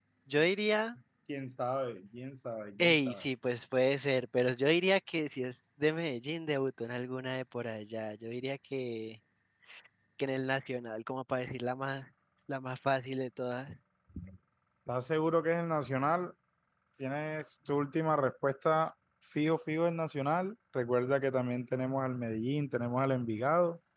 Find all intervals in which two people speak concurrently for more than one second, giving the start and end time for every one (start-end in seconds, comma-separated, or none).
none